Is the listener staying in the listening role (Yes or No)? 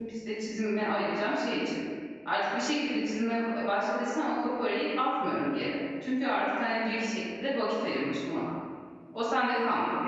Yes